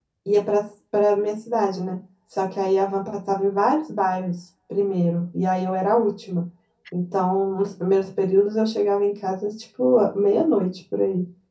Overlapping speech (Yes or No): No